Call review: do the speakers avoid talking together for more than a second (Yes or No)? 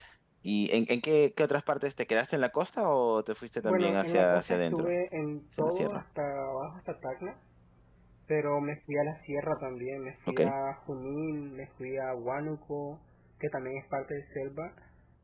No